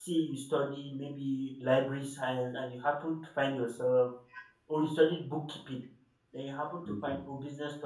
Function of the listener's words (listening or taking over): listening